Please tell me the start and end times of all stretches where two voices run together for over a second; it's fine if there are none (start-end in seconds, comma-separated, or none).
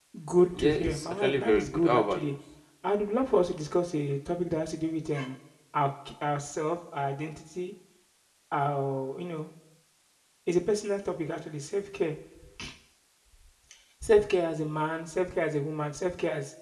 0.5-2.4